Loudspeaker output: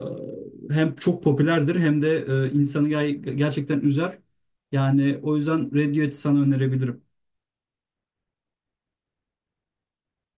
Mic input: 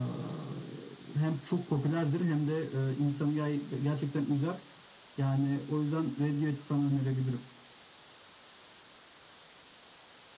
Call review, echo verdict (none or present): present